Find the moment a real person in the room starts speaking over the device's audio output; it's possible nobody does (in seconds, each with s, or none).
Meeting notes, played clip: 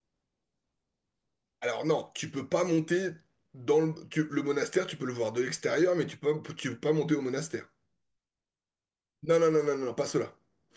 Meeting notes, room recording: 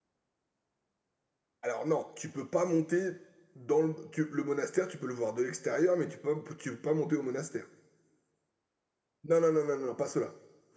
none